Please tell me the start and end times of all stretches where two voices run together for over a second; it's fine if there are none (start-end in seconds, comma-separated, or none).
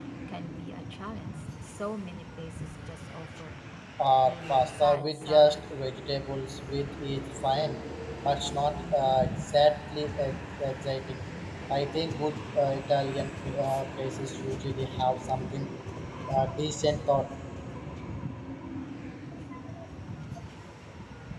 4.2-5.6